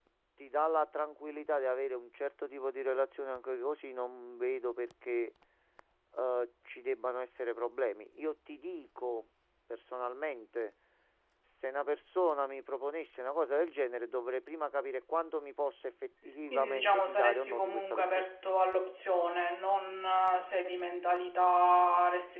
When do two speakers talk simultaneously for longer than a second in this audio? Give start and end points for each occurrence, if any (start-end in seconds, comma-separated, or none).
16.5-18.3